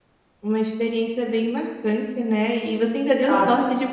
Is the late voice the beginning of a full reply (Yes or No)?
No